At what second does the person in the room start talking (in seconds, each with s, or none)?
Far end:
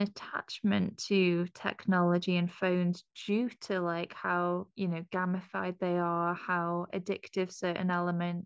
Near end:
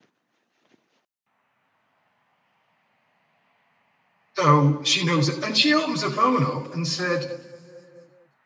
4.4 s